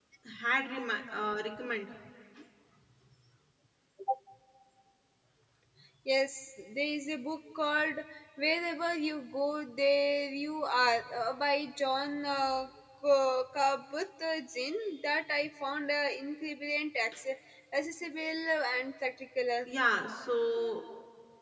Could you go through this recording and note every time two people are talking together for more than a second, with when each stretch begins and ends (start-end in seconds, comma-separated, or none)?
none